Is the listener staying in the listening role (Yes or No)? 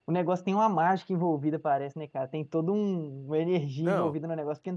Yes